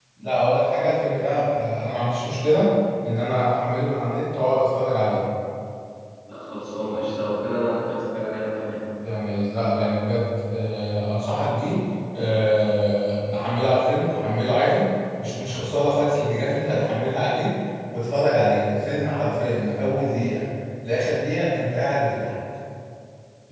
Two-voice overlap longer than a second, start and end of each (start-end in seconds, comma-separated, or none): none